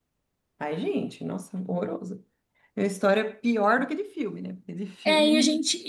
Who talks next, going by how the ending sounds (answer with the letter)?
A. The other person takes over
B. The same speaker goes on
A